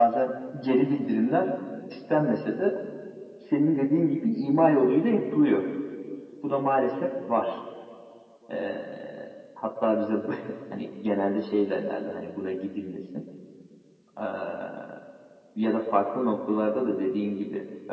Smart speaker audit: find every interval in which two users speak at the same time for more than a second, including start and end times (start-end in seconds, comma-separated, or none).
none